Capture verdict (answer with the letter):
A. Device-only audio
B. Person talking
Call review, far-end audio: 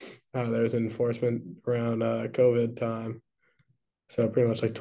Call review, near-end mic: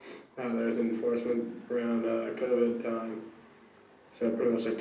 A